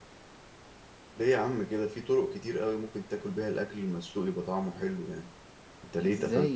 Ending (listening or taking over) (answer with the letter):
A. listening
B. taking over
B